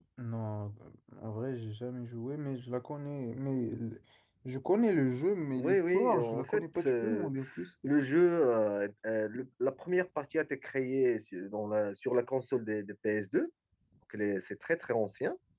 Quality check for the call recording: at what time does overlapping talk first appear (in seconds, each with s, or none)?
5.6 s